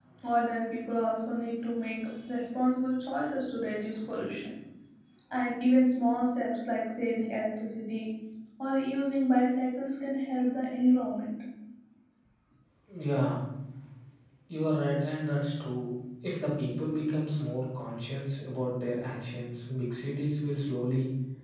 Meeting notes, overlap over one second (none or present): none